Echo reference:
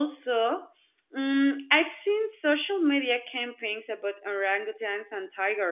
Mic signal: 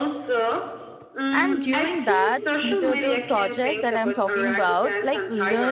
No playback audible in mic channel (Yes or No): No